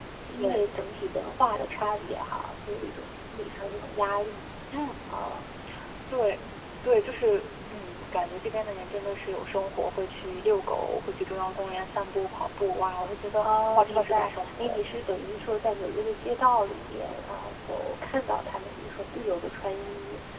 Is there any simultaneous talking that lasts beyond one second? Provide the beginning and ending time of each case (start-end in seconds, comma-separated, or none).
13.4-14.8